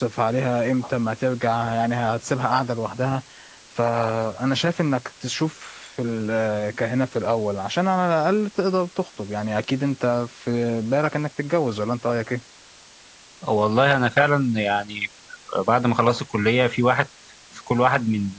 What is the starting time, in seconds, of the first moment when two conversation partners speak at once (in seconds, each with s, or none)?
none